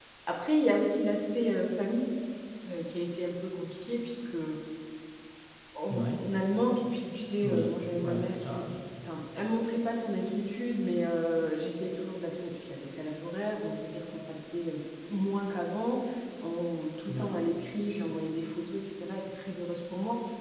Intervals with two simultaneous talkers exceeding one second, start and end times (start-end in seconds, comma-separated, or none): 7.4-8.8